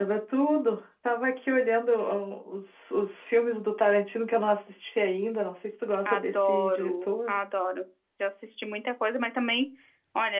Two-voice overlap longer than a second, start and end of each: 6.0-7.3

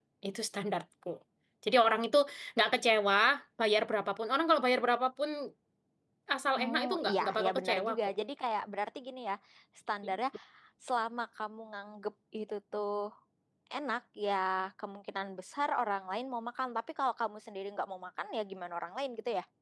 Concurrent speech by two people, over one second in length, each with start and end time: 6.6-8.0

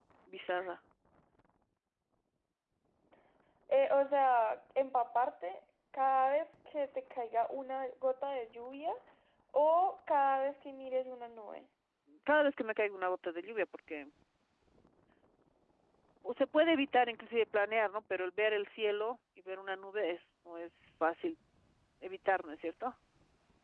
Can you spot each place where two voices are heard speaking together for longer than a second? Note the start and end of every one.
none

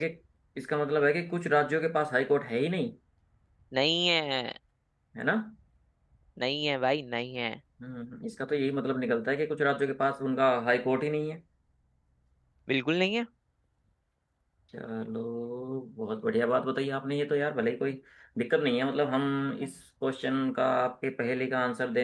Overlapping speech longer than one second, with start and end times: none

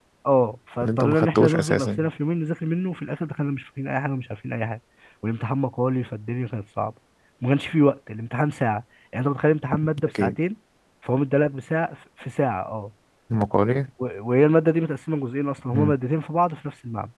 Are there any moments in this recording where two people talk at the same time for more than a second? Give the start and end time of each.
0.8-2.0

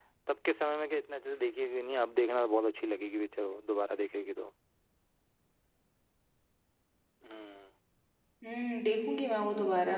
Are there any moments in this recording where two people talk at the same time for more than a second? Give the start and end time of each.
none

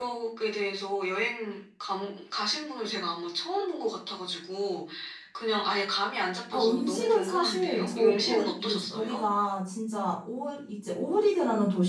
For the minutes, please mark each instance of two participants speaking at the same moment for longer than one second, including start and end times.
6.5-9.2

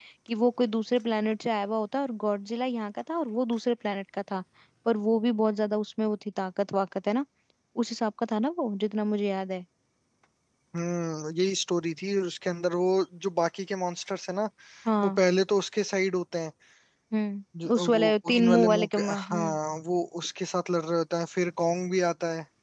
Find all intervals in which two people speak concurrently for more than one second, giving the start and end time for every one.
17.6-19.6

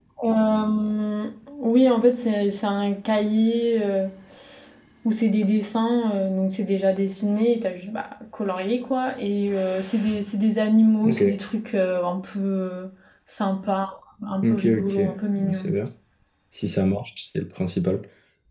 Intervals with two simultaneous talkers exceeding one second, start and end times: 14.4-15.7

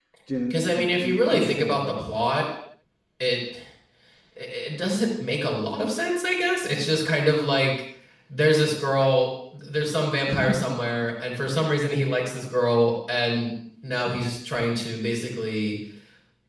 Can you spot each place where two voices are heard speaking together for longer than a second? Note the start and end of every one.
0.5-2.0

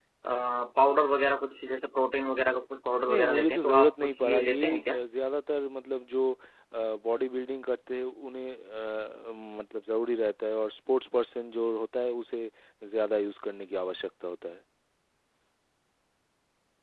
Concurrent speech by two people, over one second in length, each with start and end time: 3.1-5.0

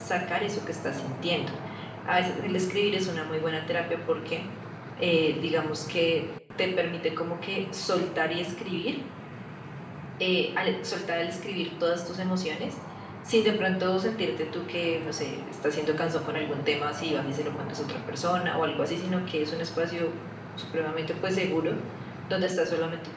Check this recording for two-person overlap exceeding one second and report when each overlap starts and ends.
none

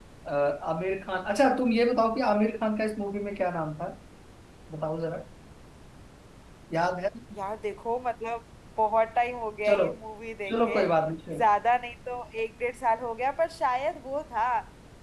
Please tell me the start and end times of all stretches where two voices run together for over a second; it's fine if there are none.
none

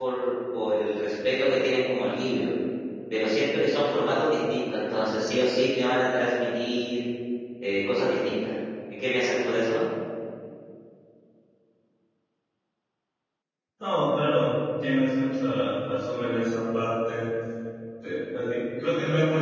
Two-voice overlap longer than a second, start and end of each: none

